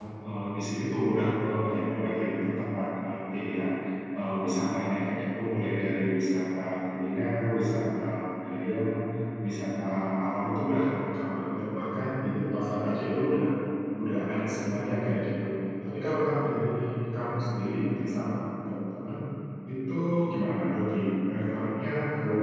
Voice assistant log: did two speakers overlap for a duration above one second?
No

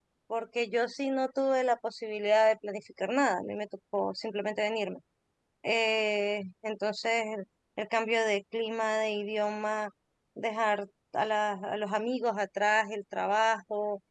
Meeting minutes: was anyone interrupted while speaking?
No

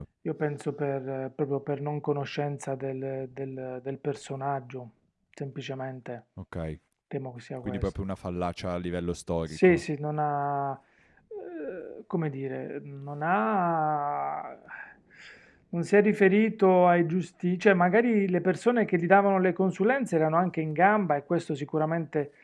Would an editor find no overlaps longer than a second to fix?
Yes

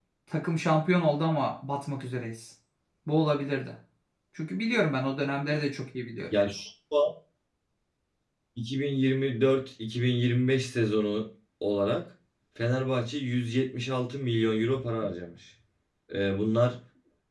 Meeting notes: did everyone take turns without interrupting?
Yes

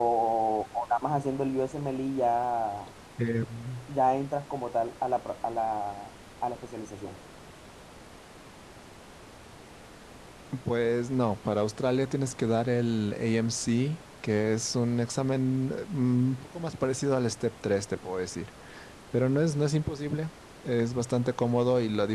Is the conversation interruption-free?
Yes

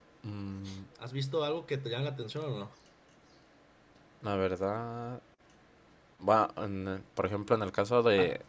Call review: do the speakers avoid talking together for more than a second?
Yes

